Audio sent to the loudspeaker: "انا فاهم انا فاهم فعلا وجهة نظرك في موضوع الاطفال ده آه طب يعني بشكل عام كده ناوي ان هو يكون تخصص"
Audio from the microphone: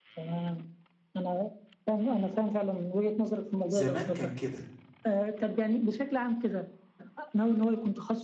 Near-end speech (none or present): present